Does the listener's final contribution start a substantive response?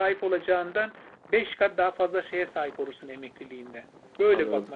Yes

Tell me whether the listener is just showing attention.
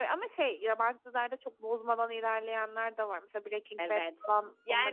No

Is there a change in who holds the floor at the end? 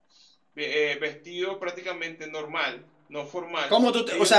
Yes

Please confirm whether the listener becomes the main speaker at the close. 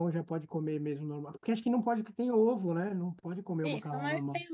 Yes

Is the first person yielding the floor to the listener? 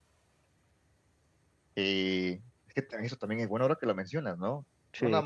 No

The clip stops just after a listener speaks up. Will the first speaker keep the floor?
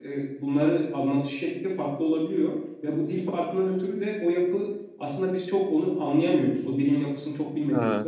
Yes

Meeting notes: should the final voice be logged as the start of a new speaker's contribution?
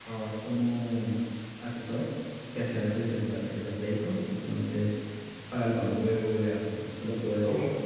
Yes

